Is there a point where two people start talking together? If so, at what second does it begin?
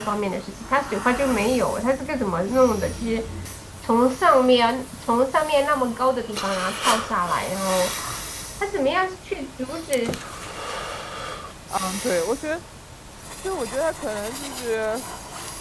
none

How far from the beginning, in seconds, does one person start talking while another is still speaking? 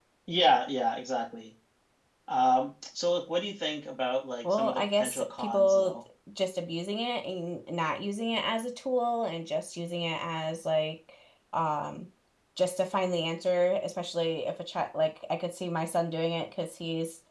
4 s

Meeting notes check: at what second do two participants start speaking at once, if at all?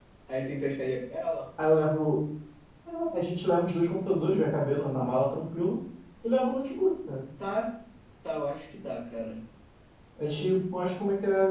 none

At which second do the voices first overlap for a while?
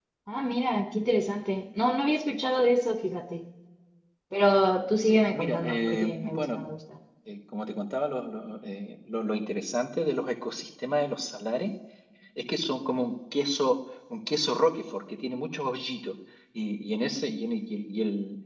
5 s

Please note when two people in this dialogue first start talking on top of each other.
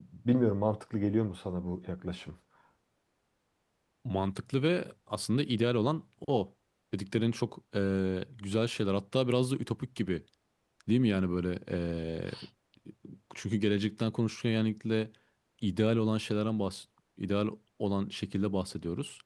none

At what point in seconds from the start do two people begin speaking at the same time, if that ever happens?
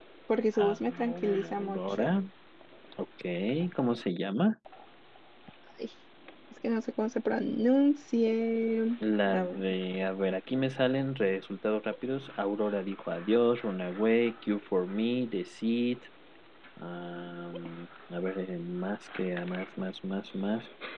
1 s

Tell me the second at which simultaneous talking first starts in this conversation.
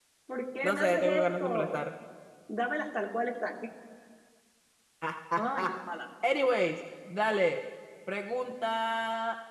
1 s

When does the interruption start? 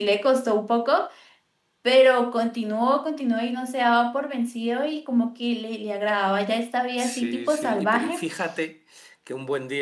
7 s

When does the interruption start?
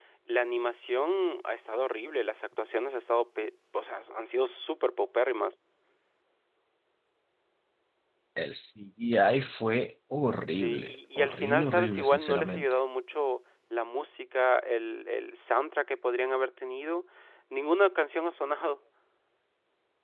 10 s

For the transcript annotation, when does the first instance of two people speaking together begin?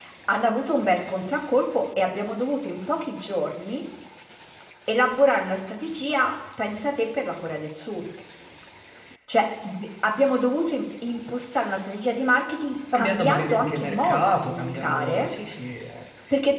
13 s

